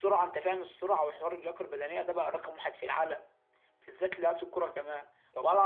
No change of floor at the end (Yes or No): Yes